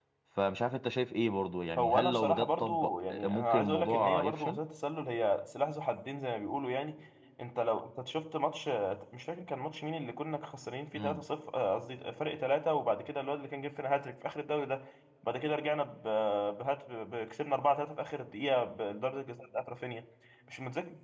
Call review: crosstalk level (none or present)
present